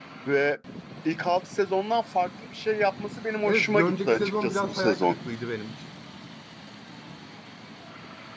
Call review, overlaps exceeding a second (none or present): present